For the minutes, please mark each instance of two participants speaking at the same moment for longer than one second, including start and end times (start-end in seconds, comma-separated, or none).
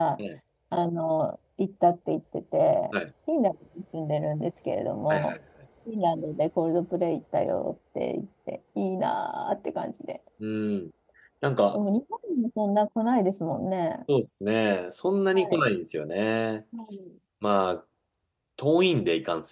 none